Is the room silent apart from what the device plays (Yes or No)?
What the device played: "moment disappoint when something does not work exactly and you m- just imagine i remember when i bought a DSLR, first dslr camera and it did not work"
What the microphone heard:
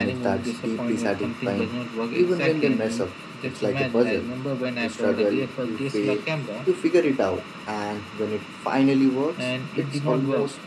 No